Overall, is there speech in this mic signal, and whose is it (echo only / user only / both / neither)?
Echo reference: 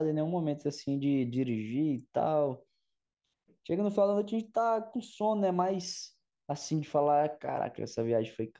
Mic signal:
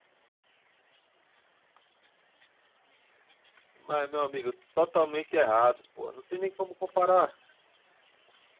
user only